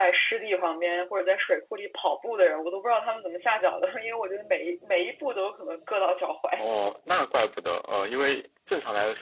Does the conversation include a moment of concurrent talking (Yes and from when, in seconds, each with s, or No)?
No